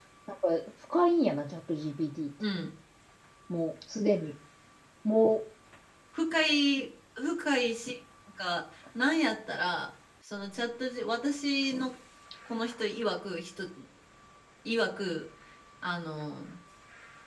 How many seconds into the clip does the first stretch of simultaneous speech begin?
none

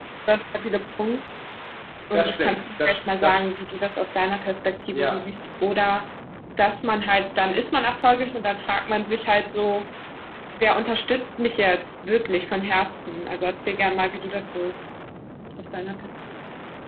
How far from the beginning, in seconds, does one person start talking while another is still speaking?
2.1 s

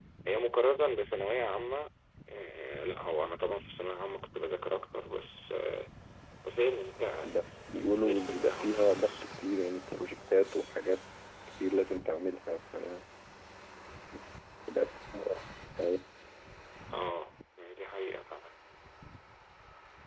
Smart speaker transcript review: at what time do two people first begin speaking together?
7.8 s

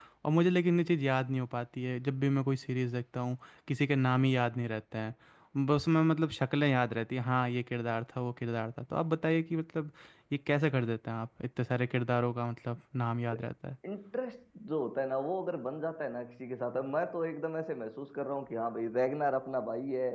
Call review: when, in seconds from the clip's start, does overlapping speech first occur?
none

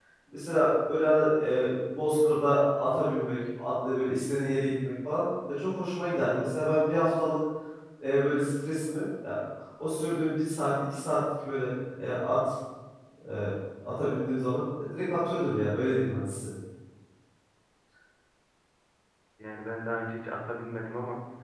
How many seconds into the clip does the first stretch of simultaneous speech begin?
none

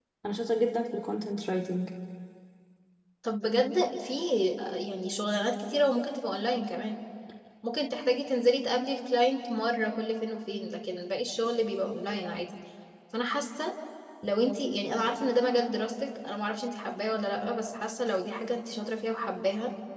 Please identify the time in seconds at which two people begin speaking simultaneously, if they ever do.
none

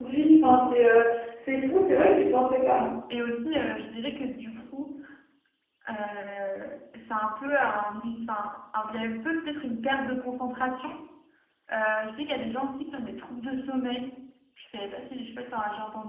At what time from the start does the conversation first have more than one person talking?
none

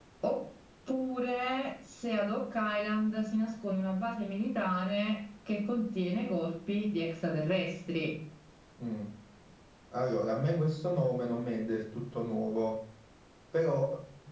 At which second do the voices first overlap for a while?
none

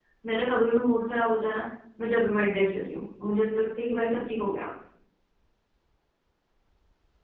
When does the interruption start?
none

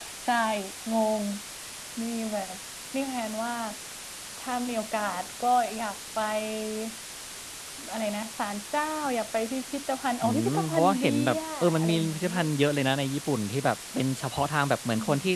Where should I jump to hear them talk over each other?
10.2 s

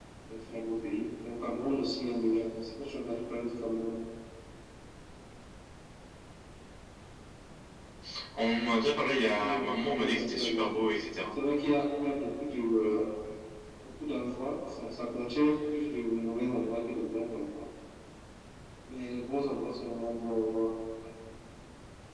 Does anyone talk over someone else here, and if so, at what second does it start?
9.3 s

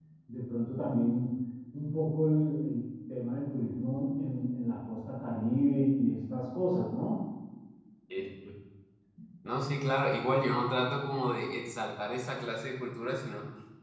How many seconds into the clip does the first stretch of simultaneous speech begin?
none

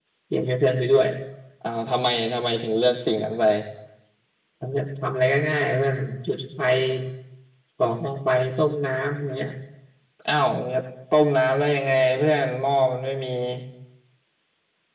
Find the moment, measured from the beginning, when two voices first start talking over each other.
none

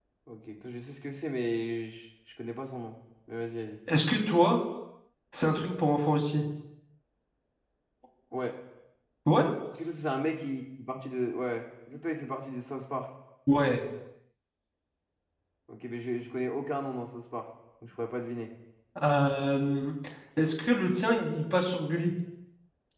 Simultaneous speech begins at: none

